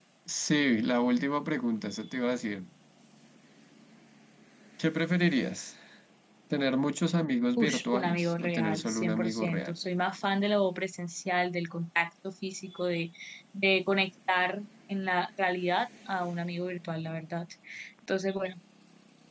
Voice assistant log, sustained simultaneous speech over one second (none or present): present